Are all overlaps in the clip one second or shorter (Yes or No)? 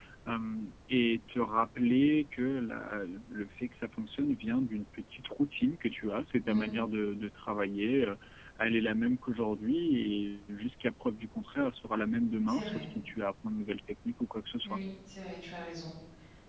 Yes